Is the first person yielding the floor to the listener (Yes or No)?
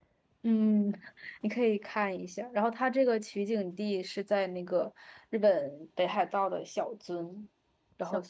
No